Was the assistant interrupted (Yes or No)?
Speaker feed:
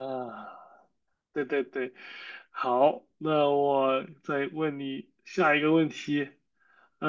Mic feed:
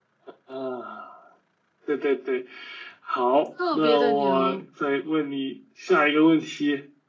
Yes